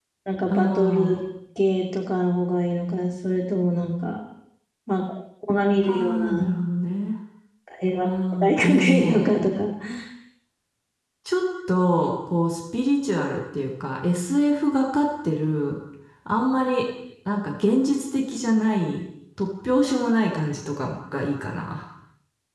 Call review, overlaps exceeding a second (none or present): present